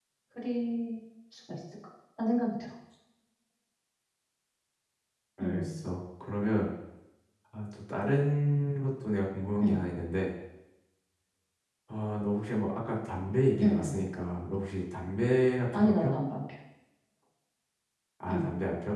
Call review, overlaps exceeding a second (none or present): none